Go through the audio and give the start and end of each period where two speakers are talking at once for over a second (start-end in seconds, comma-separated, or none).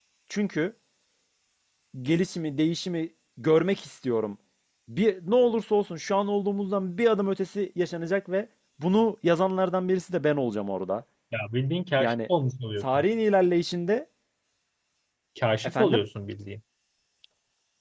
none